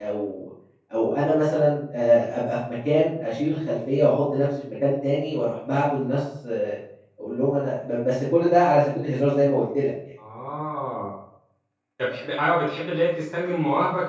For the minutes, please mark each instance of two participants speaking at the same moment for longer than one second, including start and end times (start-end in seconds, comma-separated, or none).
none